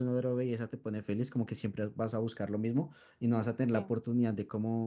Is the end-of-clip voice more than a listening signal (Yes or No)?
No